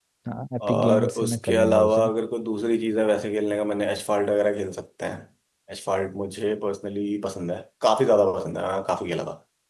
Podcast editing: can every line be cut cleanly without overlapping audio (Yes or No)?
No